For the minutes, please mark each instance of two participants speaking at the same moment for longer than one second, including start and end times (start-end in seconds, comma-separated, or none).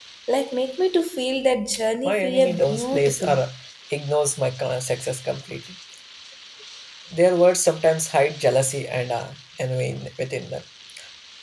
2.0-3.4